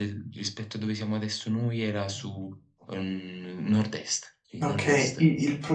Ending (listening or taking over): taking over